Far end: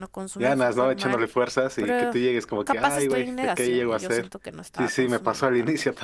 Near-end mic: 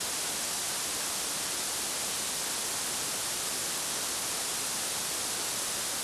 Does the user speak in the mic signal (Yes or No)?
No